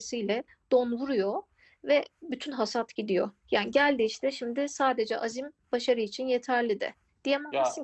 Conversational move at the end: listening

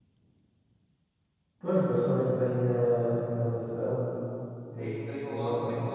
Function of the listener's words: taking over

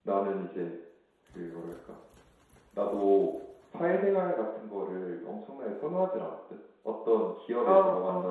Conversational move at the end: listening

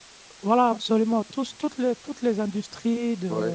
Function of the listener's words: listening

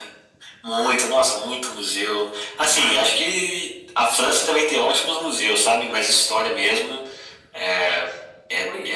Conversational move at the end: listening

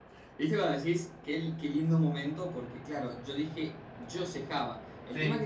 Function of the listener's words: listening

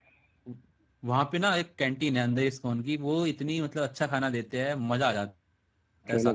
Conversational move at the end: taking over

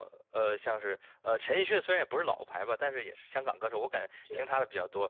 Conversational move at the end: listening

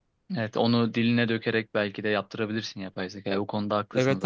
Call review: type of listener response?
taking over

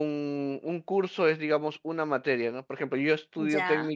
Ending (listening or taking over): listening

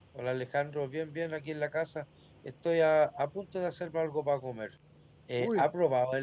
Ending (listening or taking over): listening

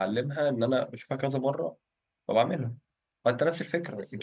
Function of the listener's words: taking over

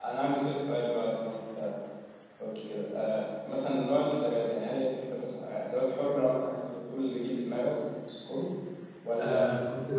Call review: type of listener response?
taking over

